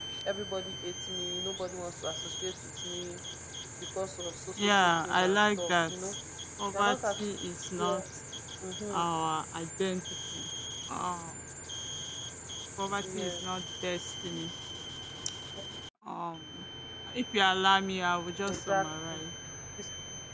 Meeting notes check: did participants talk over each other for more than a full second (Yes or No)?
Yes